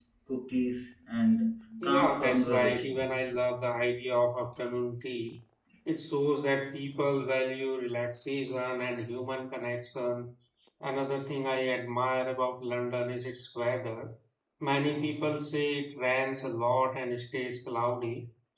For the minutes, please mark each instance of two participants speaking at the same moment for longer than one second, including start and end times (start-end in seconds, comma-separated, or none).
1.8-3.1